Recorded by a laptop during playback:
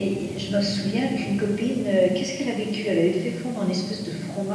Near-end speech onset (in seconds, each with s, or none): none